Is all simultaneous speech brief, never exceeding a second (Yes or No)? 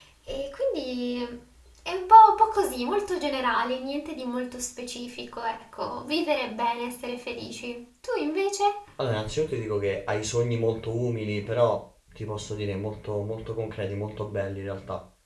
Yes